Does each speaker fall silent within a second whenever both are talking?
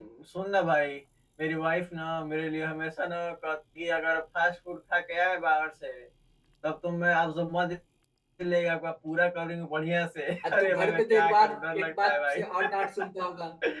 No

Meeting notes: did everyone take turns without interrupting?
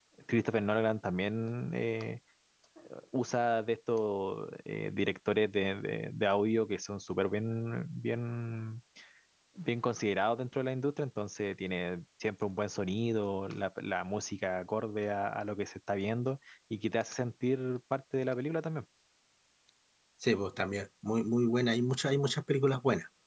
Yes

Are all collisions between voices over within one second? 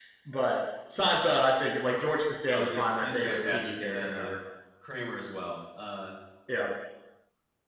No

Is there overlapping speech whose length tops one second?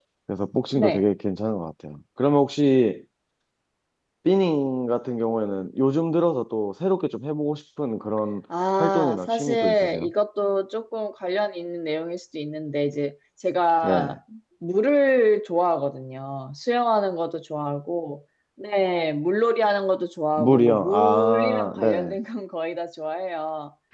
Yes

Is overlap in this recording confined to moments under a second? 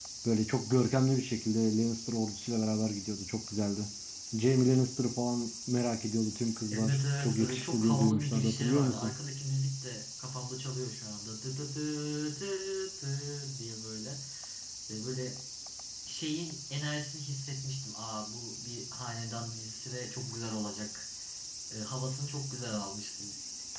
No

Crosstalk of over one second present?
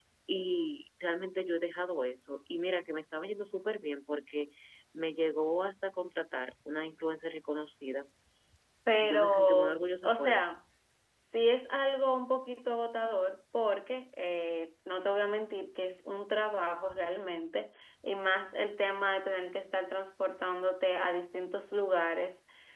Yes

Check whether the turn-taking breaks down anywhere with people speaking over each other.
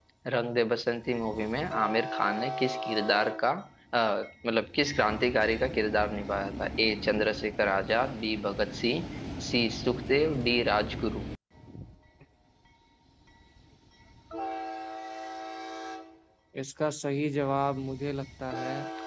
No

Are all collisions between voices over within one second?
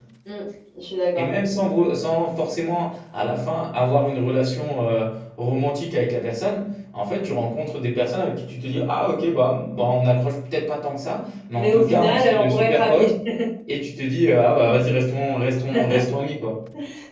No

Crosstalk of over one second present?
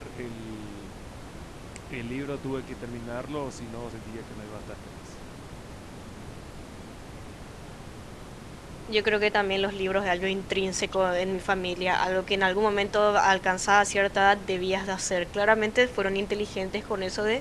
No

